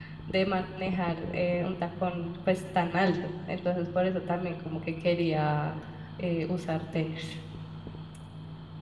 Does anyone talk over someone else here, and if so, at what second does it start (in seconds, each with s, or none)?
none